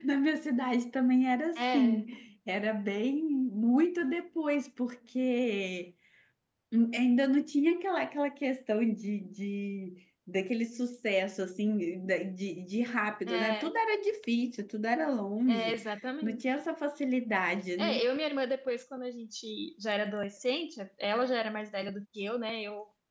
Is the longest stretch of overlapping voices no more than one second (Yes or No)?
Yes